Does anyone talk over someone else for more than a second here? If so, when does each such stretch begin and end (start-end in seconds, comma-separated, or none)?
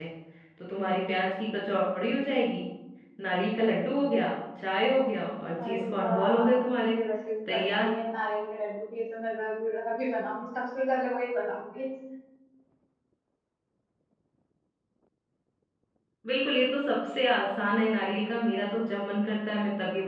5.7-7.0